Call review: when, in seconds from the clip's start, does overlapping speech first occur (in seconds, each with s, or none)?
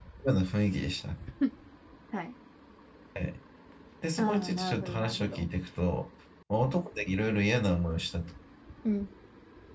4.2 s